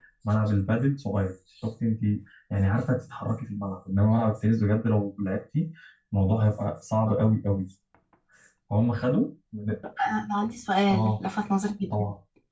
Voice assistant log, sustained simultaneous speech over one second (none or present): none